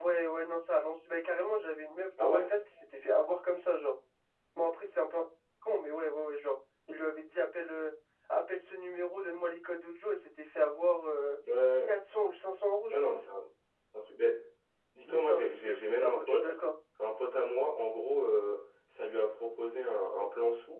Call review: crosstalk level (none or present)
present